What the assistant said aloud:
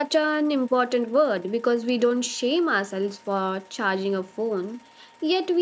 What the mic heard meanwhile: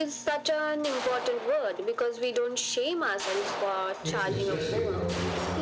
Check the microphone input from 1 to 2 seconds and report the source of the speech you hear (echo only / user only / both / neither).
echo only